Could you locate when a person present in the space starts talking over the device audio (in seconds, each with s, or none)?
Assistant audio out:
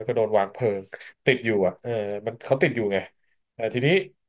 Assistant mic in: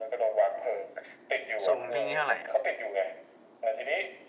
1.6 s